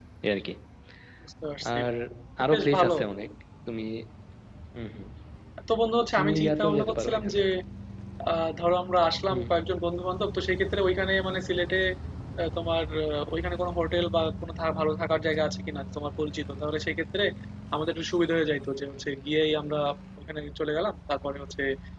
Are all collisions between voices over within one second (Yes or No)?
No